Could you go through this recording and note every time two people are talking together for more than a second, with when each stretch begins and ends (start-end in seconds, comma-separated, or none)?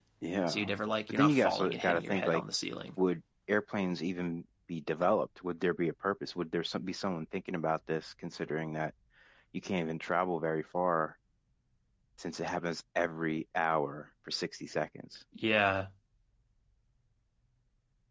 1.1-2.4